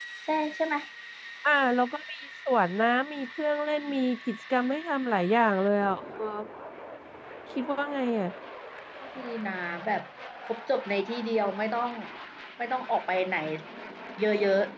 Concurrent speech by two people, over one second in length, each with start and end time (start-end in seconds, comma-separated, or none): none